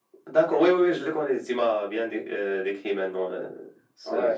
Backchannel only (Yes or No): No